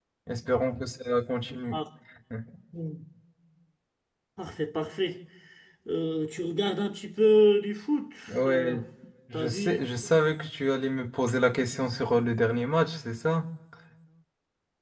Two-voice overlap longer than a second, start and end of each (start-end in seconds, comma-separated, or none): none